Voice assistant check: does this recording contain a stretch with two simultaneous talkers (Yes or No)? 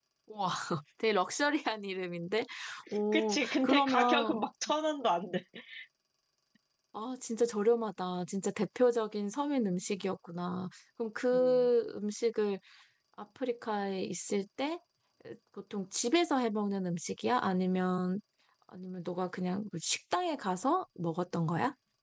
Yes